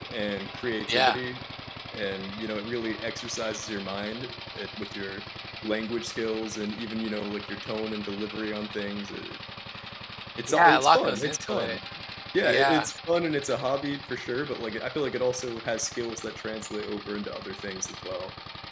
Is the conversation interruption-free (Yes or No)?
No